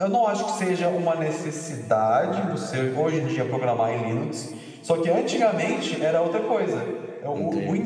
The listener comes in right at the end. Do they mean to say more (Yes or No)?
No